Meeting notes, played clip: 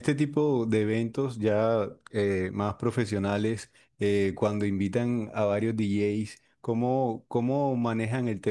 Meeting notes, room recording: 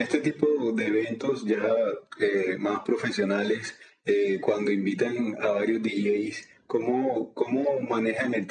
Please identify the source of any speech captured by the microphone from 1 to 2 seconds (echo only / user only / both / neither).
echo only